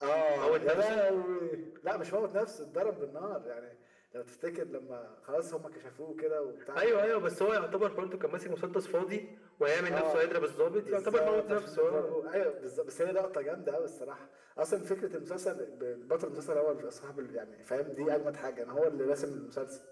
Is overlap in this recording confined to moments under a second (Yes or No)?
No